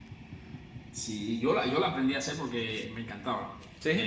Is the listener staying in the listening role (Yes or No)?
Yes